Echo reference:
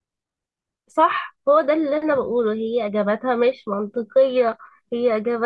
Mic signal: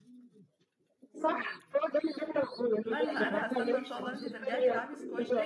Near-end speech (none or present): present